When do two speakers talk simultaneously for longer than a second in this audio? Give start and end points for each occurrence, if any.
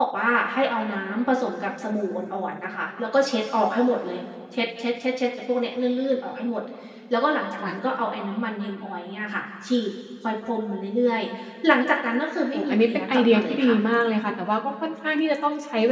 12.5-13.8

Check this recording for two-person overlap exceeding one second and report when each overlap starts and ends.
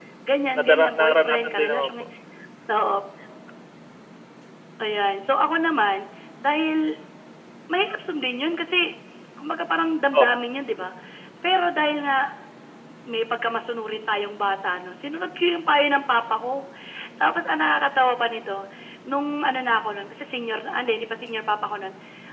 0.6-1.9

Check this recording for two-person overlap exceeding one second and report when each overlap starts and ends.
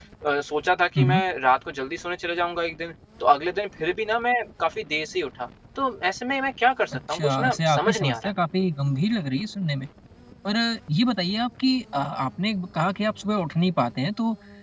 6.9-8.3

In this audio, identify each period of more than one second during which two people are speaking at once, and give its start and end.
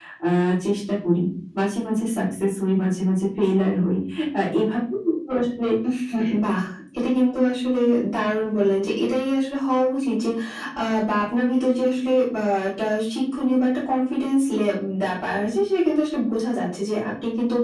none

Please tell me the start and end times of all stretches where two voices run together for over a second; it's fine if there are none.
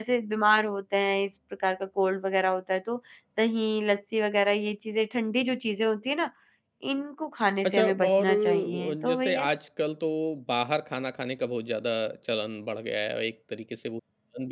7.7-9.5

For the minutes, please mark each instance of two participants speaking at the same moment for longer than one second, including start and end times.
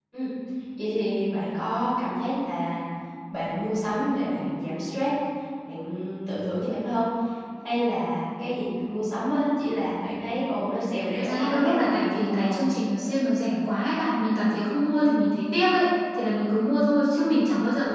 11.2-12.7

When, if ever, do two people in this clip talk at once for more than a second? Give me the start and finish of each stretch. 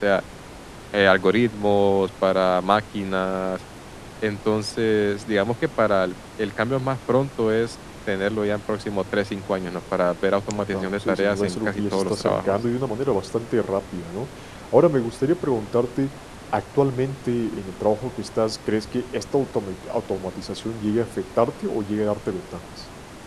10.7-12.5

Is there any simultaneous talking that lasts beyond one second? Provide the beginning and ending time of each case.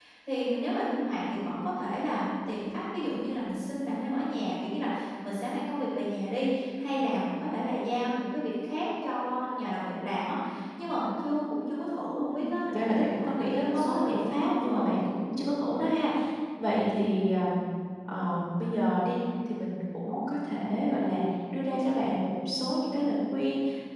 12.3-14.9

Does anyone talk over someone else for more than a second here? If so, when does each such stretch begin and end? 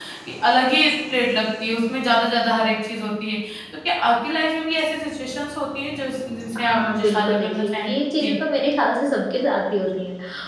6.7-8.3

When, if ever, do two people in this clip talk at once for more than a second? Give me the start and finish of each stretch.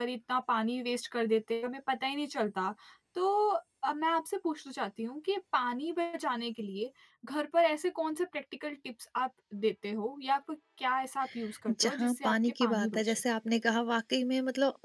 11.8-13.0

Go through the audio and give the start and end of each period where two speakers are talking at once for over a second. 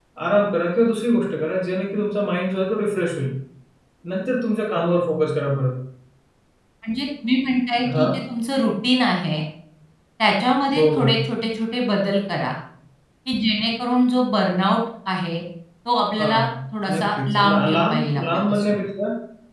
17.0-18.8

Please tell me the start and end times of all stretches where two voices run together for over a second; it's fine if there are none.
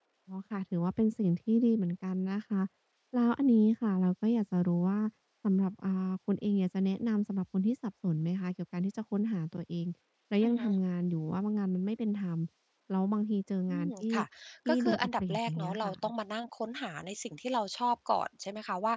14.7-15.9

